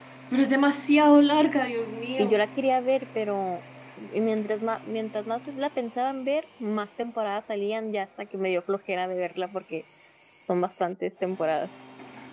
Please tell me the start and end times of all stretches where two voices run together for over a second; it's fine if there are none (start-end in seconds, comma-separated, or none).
none